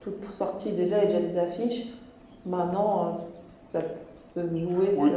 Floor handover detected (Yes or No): Yes